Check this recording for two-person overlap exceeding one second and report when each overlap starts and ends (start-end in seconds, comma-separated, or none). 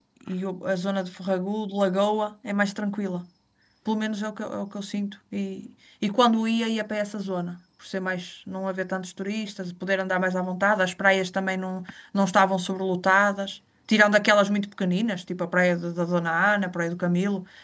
none